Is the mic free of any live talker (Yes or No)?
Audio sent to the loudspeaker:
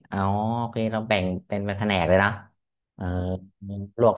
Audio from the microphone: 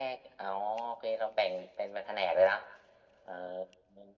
Yes